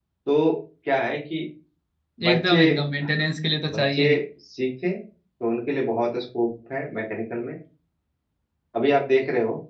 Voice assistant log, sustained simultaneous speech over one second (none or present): none